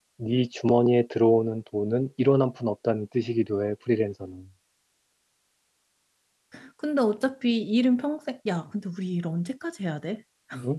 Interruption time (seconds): none

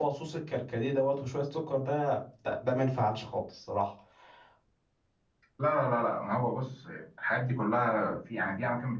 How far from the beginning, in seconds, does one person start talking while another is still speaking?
none

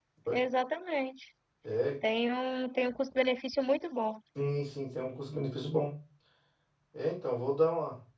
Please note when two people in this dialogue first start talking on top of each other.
none

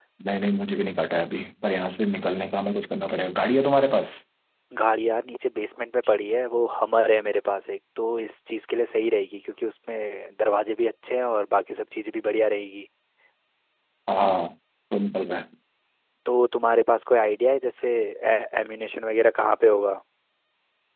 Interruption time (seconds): none

